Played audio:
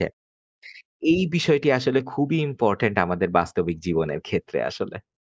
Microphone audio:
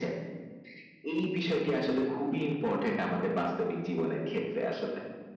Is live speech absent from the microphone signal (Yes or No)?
Yes